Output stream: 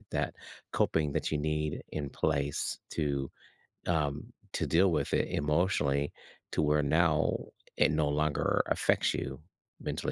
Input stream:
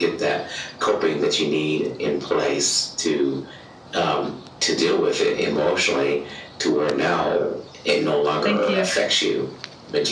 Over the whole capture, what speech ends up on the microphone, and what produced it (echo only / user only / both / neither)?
both